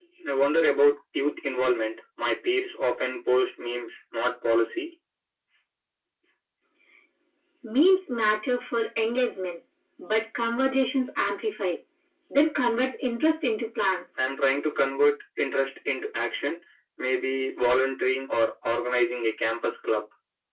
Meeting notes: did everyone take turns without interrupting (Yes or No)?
Yes